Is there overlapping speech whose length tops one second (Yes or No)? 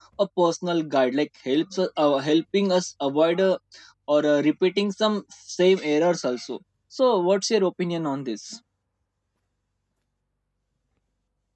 No